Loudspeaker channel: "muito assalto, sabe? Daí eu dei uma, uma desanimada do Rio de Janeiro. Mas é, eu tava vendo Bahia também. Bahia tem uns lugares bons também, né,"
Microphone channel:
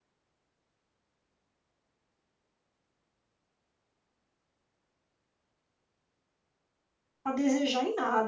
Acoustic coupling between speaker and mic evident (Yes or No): No